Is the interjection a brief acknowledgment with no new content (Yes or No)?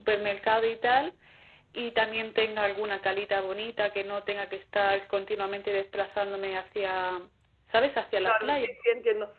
No